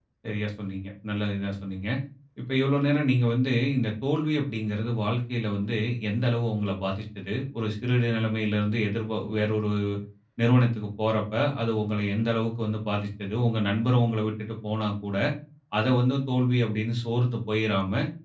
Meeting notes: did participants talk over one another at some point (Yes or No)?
No